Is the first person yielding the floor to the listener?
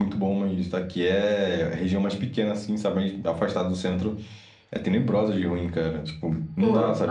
Yes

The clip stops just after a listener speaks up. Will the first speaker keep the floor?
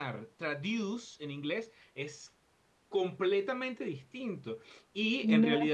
Yes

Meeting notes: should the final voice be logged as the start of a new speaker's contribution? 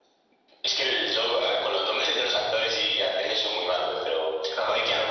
No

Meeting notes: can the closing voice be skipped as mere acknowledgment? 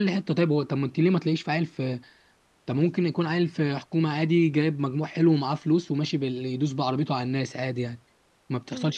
No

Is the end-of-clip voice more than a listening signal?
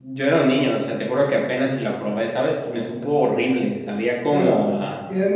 Yes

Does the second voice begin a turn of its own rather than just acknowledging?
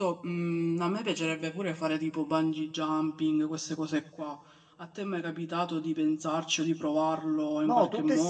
Yes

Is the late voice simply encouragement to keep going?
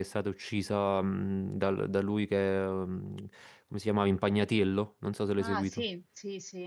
No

